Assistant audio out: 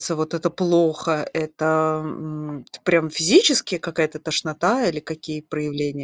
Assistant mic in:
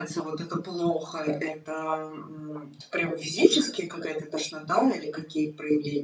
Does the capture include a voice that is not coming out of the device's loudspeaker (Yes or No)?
No